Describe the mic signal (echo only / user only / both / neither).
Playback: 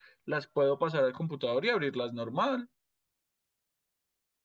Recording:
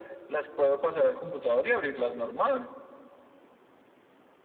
echo only